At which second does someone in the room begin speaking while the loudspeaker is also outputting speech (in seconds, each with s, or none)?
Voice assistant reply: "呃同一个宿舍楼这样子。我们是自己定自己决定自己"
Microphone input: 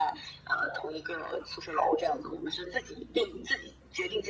none